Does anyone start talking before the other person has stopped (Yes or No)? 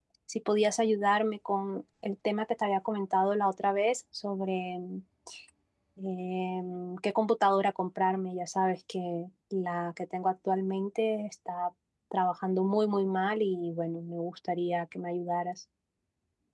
No